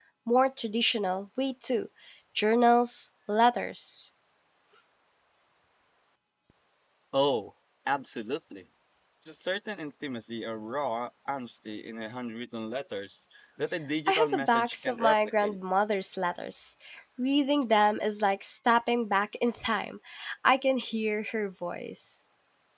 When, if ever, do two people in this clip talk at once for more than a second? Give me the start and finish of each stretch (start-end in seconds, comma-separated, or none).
14.1-15.6